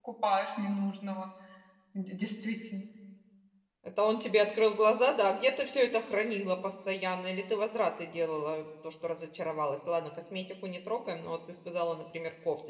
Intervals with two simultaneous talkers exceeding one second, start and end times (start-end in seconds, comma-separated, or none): none